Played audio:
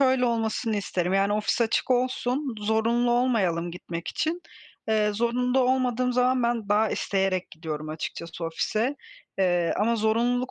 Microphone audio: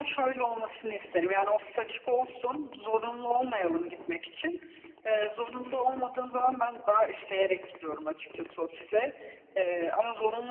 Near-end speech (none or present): none